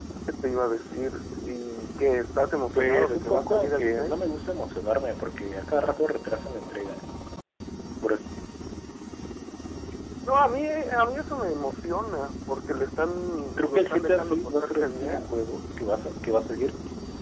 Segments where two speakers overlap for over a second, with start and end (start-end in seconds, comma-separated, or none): 2.7-4.2, 13.6-15.3